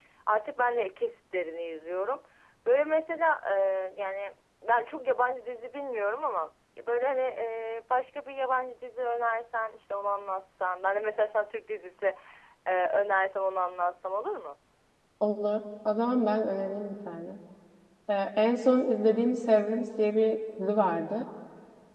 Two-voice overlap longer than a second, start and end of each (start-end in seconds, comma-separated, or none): none